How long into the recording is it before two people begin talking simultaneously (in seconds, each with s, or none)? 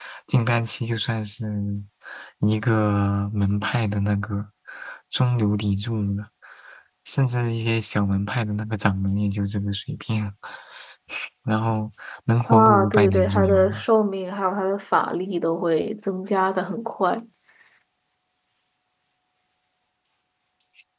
12.5 s